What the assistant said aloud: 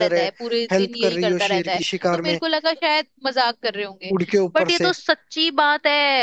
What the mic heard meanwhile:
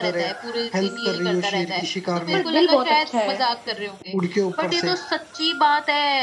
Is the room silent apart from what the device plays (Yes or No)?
No